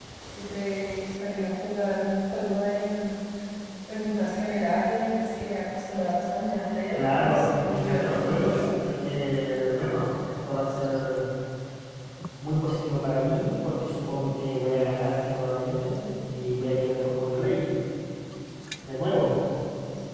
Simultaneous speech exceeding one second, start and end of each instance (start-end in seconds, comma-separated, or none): 7.0-8.7